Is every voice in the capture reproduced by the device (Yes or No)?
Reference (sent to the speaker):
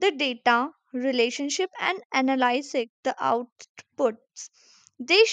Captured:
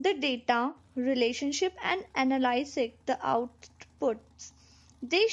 Yes